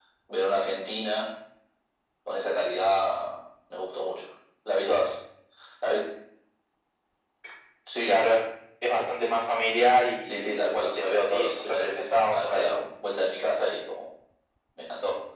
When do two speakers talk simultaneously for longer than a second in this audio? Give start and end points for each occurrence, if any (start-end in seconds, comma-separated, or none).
11.0-12.7